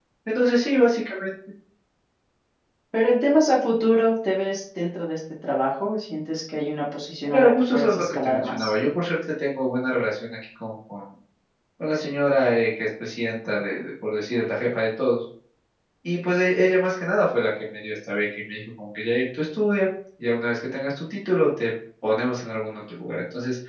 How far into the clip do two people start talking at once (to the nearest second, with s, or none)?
7 s